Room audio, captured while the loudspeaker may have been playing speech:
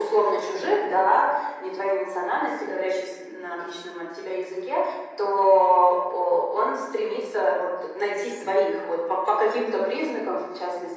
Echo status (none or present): present